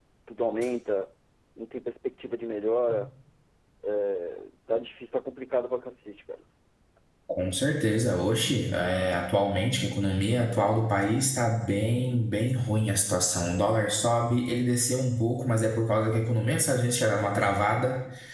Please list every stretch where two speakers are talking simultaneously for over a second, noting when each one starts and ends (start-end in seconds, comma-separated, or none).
none